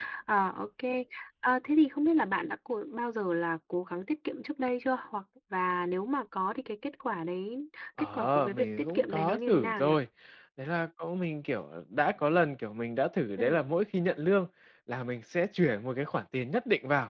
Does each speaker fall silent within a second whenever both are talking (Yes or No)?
No